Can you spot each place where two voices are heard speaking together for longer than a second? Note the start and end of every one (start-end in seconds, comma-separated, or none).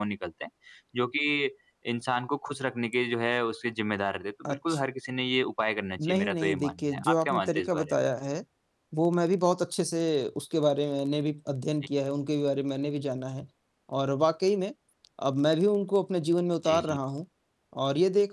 6.0-7.9